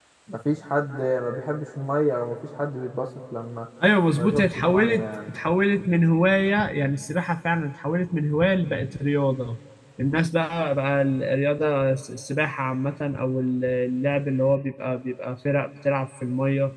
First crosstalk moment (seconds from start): 4.1 s

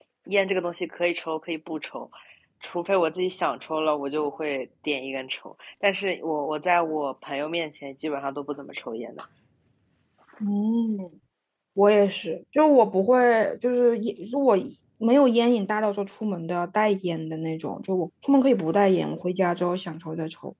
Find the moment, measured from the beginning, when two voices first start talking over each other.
none

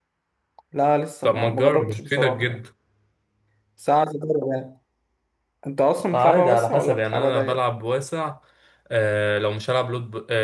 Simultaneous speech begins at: 1.2 s

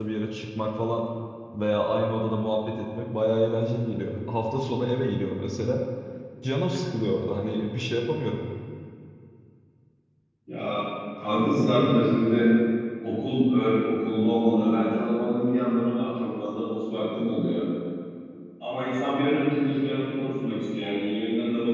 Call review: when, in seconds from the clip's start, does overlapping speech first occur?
none

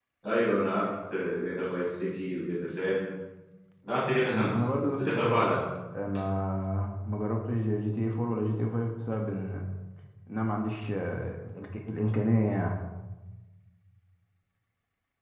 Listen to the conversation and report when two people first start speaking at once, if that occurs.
4.3 s

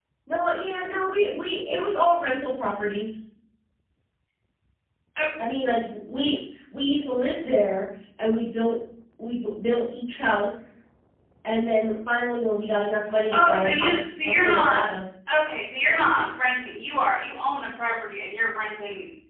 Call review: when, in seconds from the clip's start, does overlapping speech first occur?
13.3 s

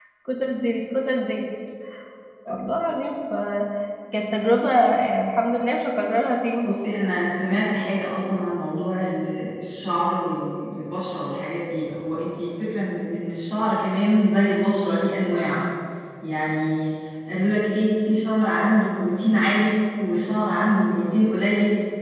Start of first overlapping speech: none

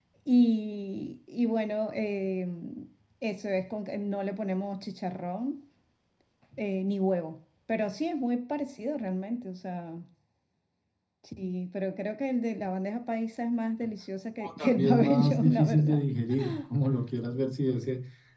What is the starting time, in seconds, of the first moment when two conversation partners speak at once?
14.4 s

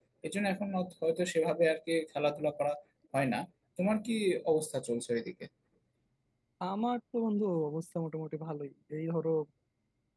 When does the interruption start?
none

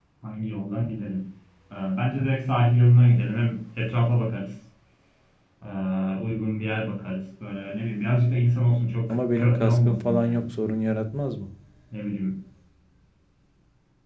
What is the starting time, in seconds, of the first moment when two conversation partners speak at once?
9.1 s

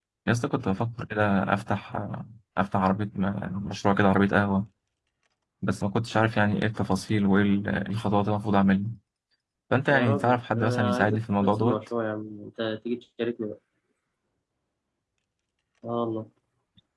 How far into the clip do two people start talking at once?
9.9 s

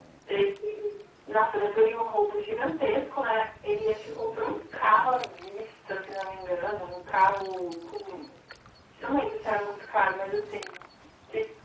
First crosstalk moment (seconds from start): none

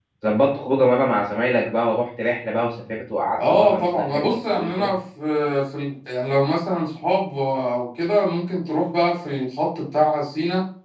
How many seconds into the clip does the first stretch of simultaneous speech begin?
3.4 s

